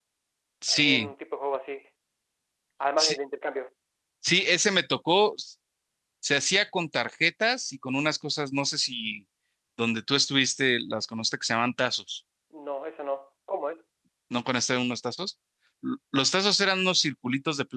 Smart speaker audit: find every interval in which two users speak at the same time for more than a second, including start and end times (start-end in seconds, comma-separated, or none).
none